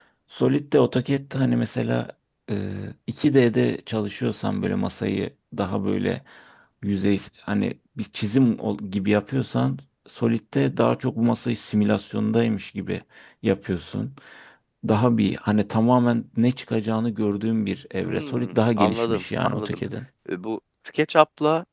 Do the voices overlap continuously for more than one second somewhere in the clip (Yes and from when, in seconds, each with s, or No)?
Yes, from 18.0 s